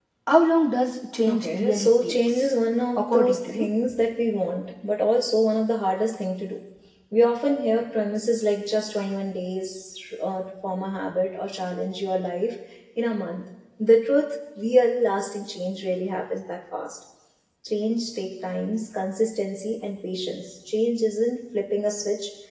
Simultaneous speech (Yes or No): Yes